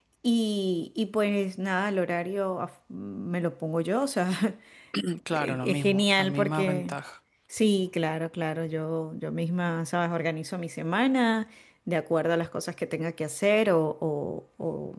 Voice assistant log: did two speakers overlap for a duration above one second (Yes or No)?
Yes